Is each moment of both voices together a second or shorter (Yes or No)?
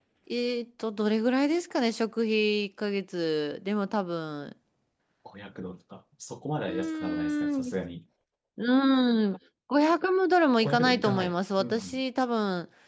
No